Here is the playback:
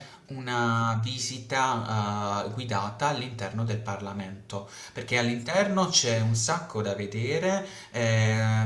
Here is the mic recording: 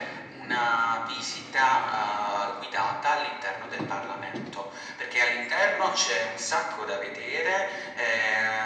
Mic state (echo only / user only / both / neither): echo only